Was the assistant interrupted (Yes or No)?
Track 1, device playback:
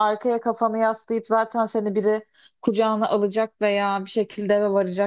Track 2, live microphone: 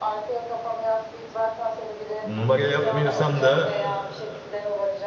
Yes